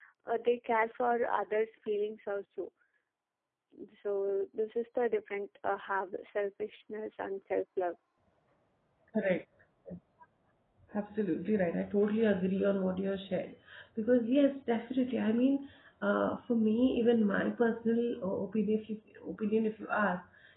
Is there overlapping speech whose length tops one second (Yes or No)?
No